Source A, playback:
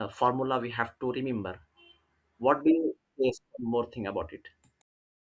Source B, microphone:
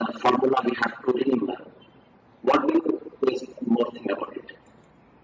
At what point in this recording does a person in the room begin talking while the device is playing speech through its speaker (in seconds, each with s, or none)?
none